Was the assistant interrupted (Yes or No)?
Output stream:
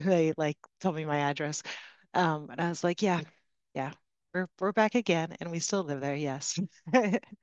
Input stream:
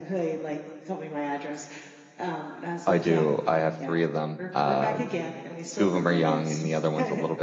Yes